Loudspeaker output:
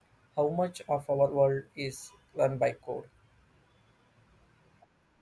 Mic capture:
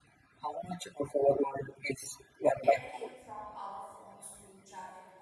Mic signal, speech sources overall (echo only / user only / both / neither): both